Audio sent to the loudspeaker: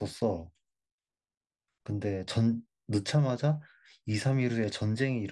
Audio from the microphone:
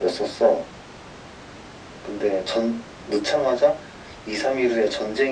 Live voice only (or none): none